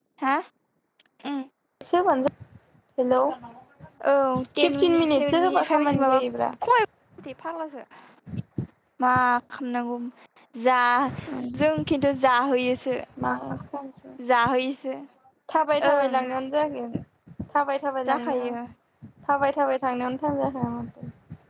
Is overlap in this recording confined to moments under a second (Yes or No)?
No